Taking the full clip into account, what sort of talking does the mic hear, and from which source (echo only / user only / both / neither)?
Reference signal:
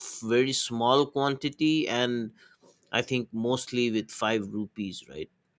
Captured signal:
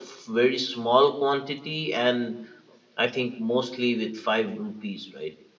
echo only